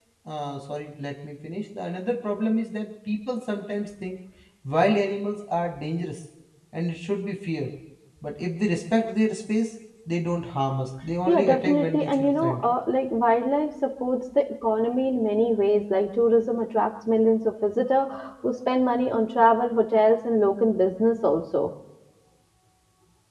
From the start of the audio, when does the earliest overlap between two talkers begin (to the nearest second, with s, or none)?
11 s